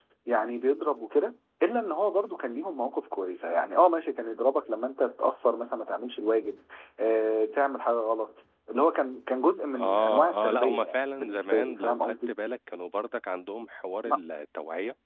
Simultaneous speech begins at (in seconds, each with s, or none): 9.7 s